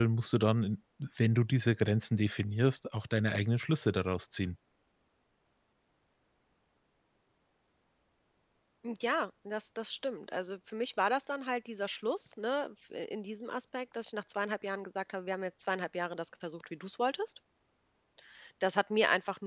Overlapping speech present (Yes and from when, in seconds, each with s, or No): No